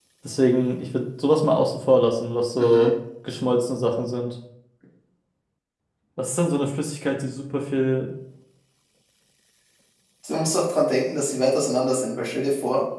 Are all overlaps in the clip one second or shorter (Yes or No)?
Yes